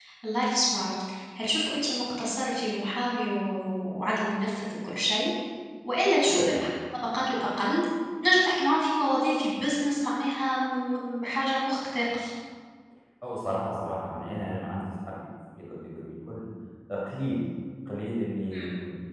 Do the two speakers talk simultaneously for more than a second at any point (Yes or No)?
No